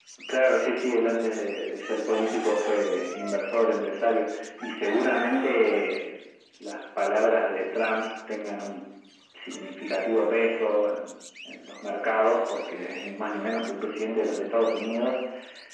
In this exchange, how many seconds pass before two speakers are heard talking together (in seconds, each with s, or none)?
none